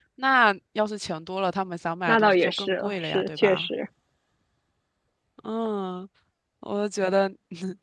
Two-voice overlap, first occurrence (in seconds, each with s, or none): 2.1 s